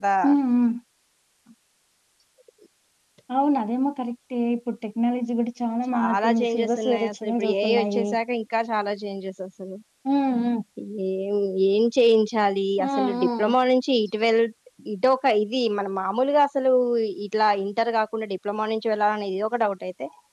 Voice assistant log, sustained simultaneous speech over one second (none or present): present